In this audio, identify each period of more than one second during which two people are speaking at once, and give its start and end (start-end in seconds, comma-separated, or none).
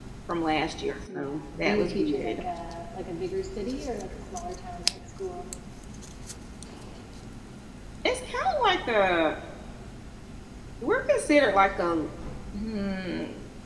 1.1-2.4